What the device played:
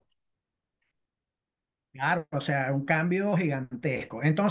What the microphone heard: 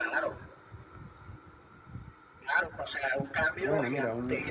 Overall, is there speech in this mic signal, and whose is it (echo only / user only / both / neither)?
both